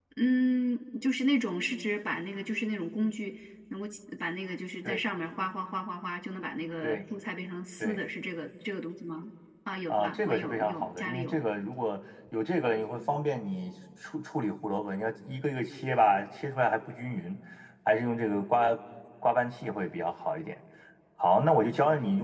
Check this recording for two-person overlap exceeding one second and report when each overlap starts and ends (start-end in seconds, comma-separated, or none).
9.9-11.4